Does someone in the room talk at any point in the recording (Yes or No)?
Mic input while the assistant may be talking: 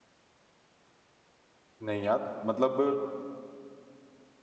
Yes